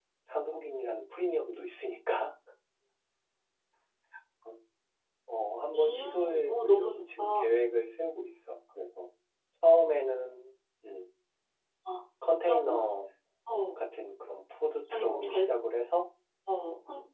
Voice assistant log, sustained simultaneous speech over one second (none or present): present